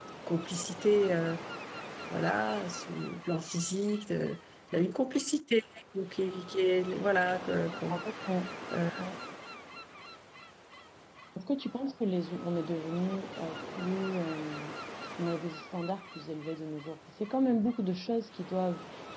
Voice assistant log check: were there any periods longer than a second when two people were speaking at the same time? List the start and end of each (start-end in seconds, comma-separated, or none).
none